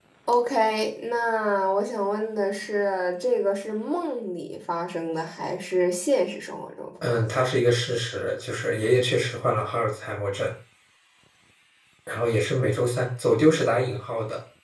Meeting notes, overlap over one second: none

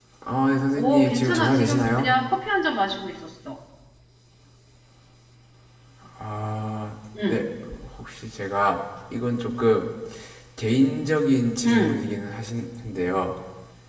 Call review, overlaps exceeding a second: present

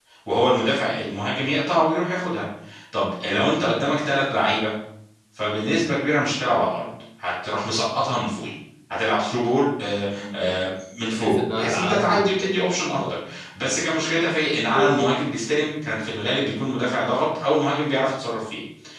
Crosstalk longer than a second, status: present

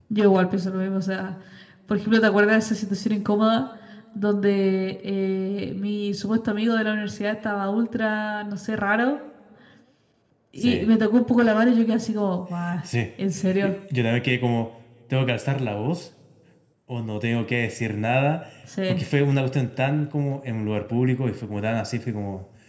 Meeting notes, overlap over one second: none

